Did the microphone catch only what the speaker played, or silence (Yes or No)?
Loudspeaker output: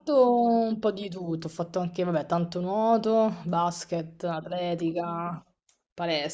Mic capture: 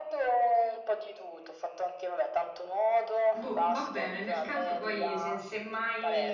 No